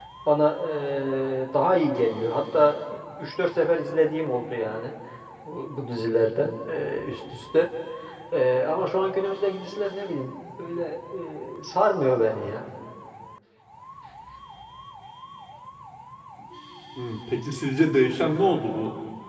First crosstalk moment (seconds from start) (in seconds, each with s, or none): none